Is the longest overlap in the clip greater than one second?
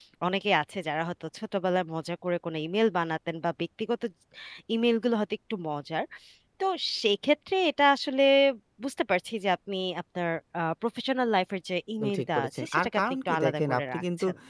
Yes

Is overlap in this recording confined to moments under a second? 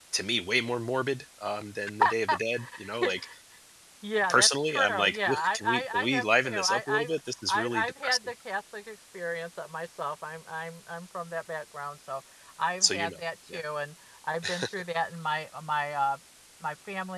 No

